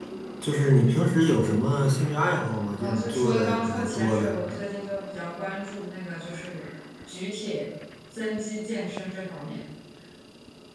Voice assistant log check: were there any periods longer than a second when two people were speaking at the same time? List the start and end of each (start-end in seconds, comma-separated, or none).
2.8-4.3